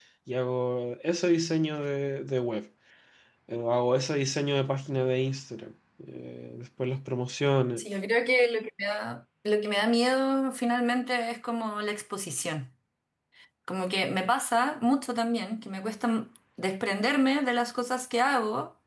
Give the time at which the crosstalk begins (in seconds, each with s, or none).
none